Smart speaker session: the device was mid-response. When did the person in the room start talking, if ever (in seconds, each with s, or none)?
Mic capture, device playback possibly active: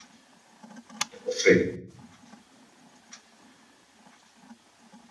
1.2 s